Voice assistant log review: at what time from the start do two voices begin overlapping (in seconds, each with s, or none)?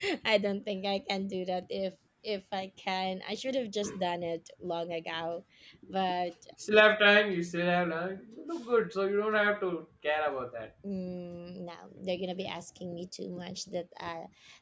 none